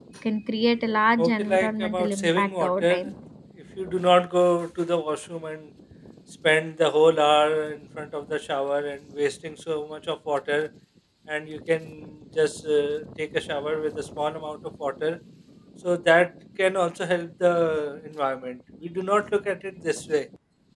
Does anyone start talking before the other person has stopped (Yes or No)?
Yes